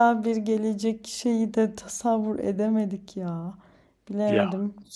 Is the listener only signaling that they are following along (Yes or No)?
Yes